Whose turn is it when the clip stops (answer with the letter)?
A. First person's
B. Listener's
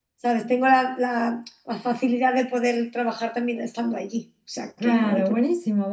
B